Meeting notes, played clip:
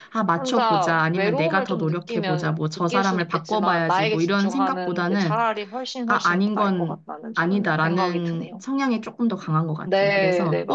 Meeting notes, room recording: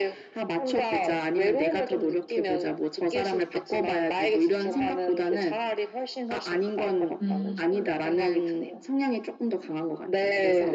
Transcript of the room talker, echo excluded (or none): 음,